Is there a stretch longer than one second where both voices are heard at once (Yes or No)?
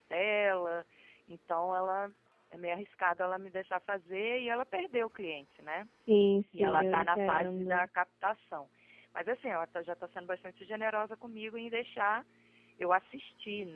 Yes